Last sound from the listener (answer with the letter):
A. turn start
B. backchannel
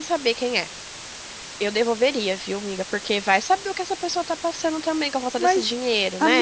A